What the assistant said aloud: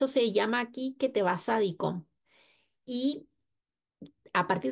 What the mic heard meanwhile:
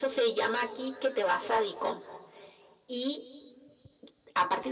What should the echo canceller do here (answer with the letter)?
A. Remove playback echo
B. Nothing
A